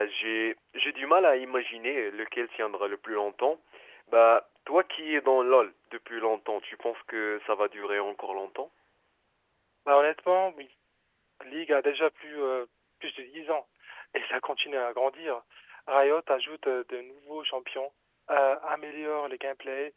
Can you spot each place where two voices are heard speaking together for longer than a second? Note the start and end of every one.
none

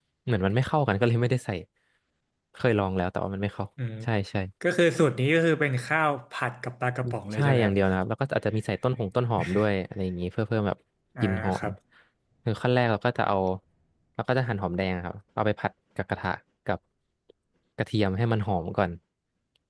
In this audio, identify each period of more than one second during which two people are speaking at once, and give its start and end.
none

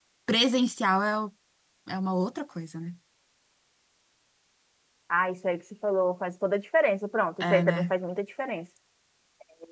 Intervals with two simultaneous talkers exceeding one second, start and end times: none

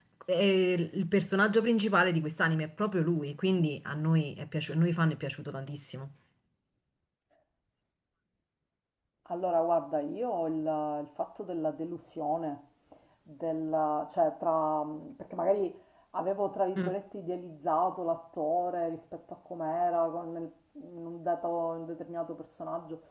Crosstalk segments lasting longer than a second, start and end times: none

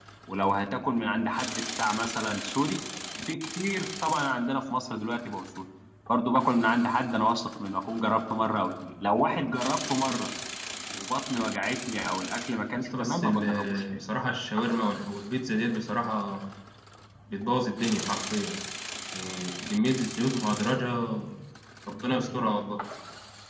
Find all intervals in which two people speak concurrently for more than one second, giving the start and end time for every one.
12.8-14.0

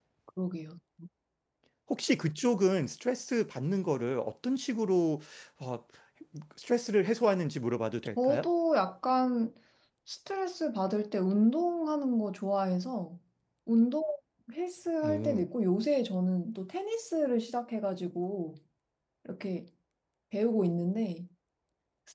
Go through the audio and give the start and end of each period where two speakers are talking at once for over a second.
none

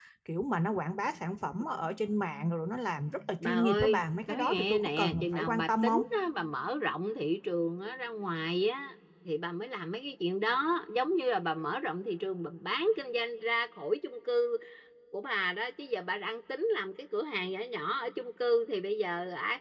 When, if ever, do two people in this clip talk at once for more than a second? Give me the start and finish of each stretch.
3.4-6.0

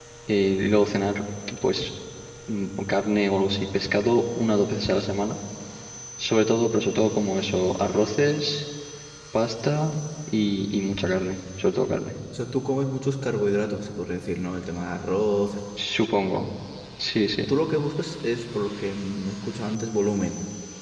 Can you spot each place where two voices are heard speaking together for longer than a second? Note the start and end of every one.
none

